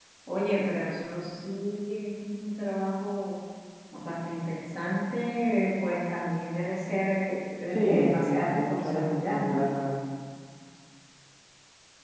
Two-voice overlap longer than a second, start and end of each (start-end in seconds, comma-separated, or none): 7.7-9.7